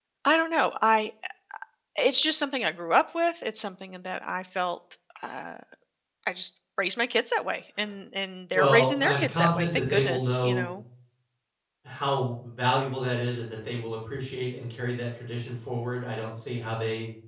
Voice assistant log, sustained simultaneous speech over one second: present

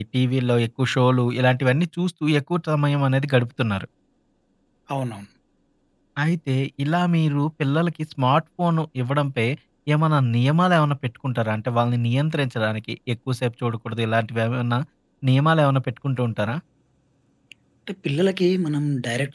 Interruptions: none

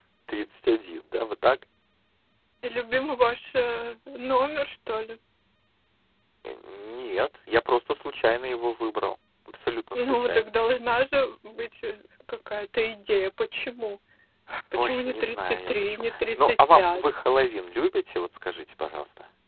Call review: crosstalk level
present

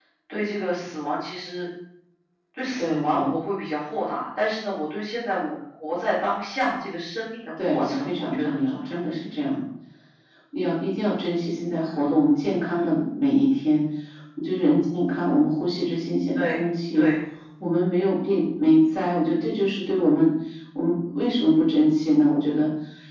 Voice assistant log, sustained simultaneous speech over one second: present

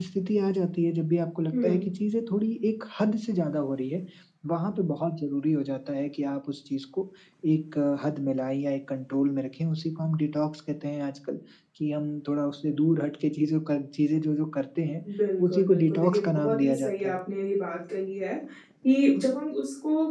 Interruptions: present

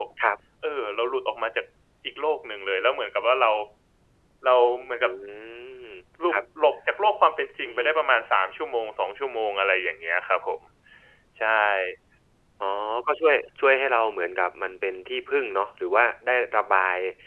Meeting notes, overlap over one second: none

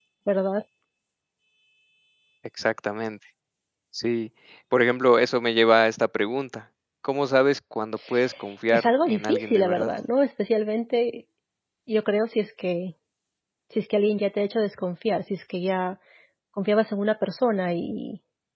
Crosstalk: present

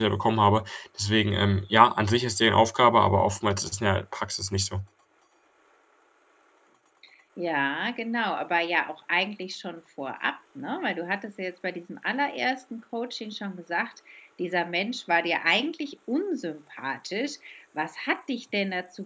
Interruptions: none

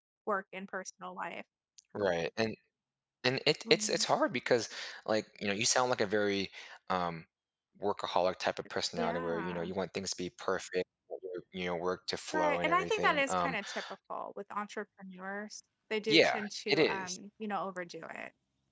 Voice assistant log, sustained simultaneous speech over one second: present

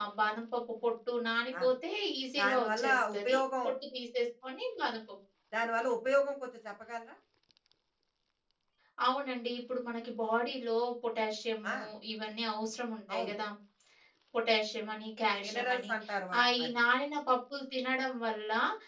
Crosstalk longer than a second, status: present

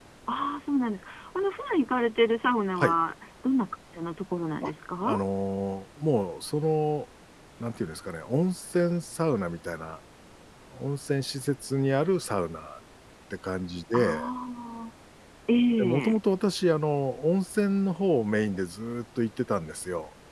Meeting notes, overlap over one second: none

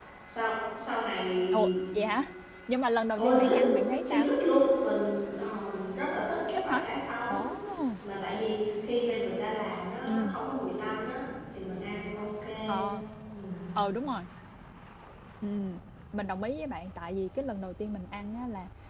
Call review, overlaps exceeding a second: none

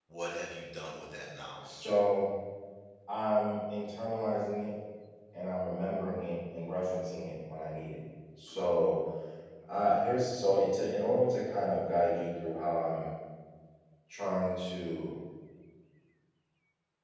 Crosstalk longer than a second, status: none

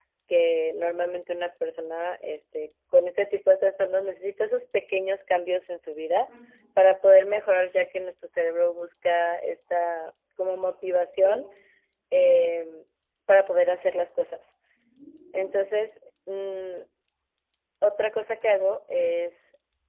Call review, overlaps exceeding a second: none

